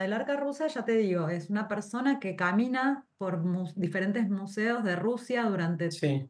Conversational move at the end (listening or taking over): listening